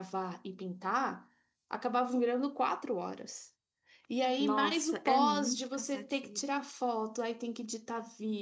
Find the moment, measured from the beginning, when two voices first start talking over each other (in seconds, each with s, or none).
4.4 s